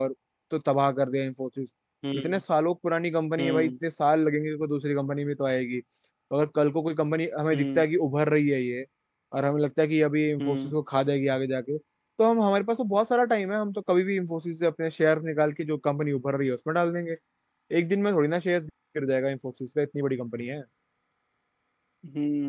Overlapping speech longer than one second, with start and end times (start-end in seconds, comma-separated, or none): none